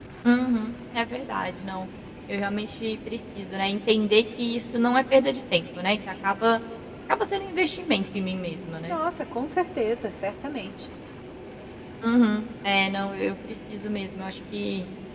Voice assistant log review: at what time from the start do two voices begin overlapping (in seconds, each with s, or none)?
none